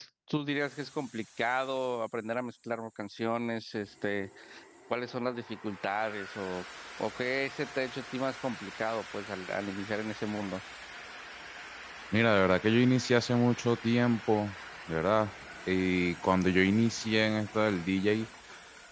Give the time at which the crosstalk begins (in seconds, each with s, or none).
none